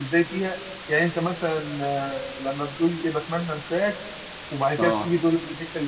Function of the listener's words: listening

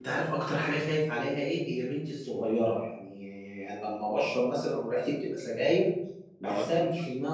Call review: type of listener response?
listening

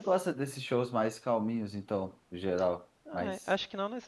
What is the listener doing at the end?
taking over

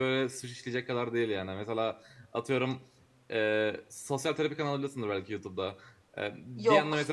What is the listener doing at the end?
listening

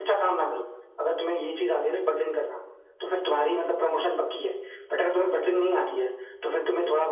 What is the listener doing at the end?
listening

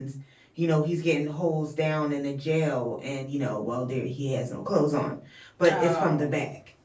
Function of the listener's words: listening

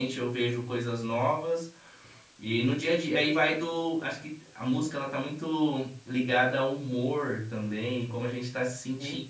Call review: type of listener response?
listening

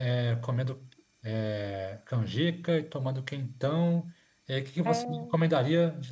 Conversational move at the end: listening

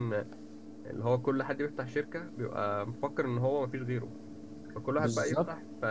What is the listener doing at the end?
listening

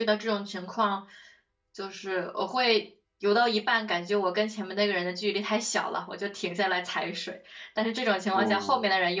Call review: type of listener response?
listening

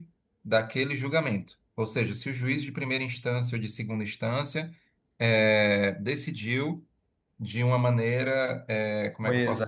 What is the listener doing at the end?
listening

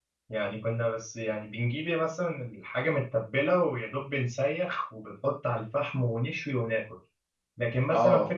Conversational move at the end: listening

